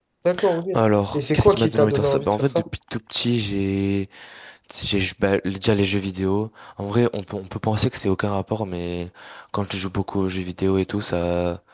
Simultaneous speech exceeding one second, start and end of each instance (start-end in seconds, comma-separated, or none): 1.1-2.6